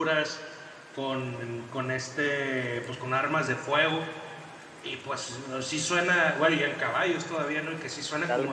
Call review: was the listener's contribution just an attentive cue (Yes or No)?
Yes